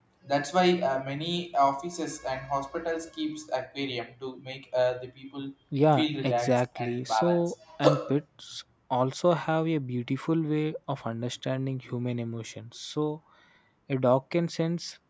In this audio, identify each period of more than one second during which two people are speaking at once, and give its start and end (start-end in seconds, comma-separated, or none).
6.0-7.5